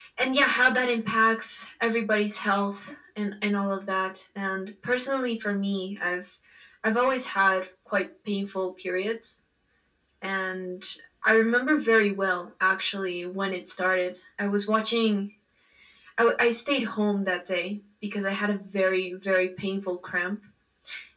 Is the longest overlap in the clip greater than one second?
No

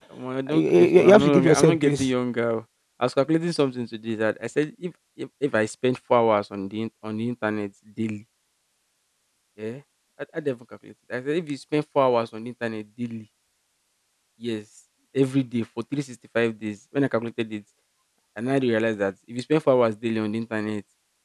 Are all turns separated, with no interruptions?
No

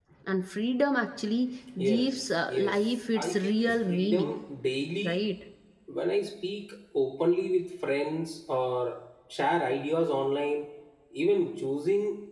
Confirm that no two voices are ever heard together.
No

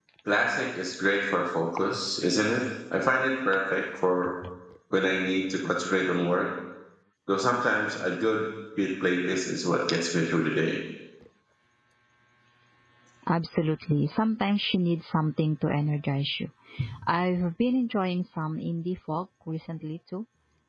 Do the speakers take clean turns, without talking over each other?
Yes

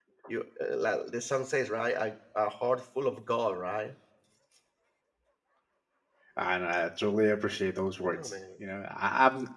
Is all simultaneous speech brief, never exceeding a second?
Yes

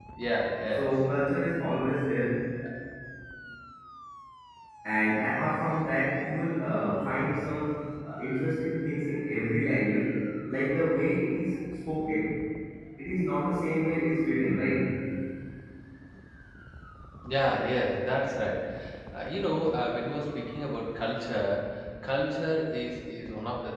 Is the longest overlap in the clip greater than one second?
No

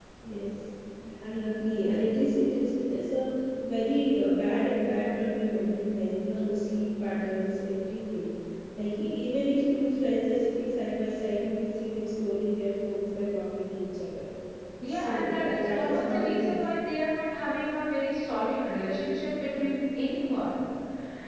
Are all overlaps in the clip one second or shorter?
No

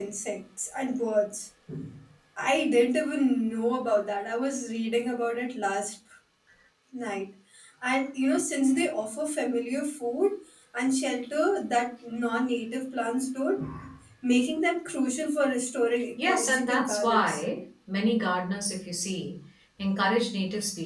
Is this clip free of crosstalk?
No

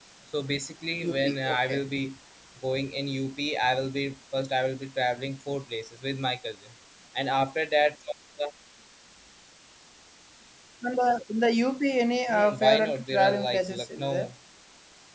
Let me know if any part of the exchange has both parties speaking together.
Yes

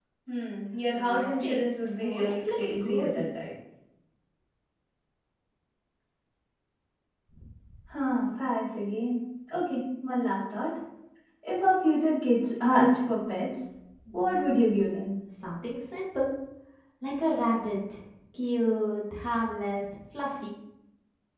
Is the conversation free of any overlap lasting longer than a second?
No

